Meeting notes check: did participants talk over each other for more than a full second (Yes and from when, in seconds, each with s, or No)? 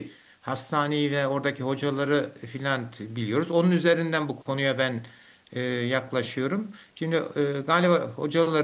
No